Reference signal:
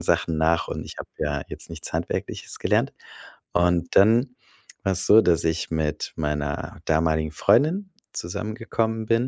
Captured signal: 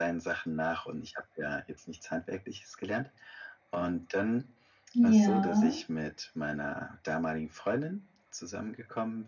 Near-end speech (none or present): present